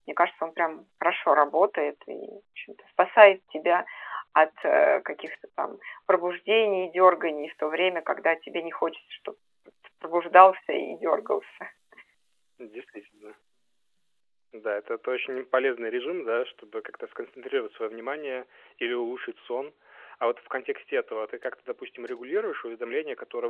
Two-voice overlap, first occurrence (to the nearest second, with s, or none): none